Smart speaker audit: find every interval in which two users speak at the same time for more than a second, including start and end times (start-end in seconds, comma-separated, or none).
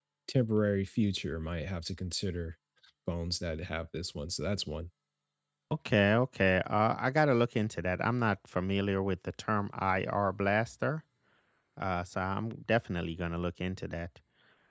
none